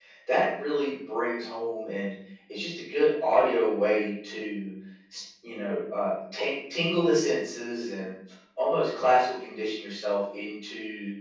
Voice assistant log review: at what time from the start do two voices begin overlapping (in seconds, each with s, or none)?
none